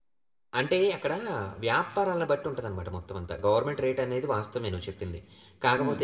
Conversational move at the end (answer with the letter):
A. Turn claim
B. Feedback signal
B